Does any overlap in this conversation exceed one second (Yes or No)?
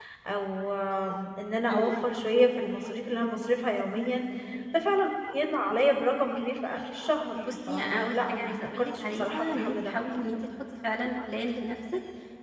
Yes